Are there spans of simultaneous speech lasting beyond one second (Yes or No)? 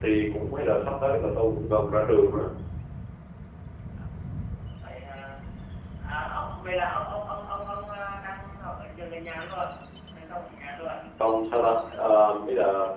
No